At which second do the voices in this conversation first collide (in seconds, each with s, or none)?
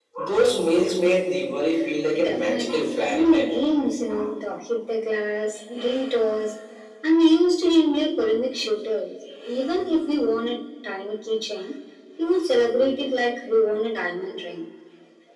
2.2 s